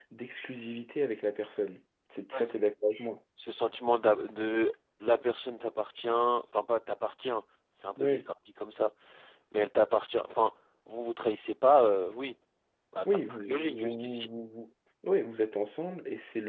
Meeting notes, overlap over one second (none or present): present